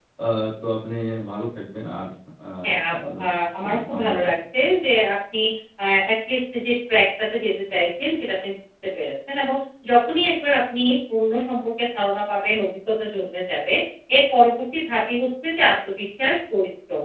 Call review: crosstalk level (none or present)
present